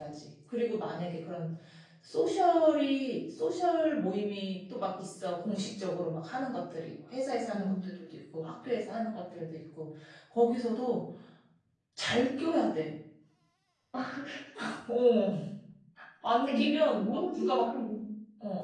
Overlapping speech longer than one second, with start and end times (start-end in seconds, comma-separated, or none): 16.5-17.7